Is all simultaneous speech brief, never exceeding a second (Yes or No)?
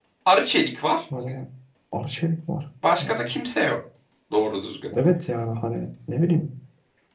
Yes